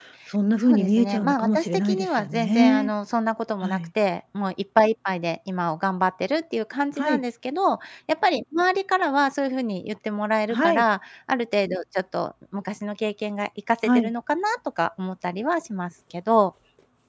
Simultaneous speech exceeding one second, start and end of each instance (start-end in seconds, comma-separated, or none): 0.6-2.9